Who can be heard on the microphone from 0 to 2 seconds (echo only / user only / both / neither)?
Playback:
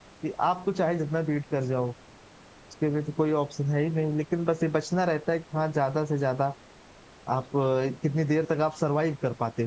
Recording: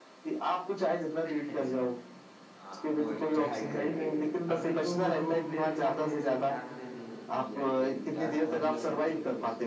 both